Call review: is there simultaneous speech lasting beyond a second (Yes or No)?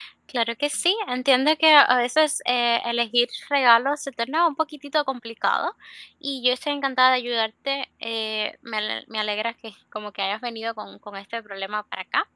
No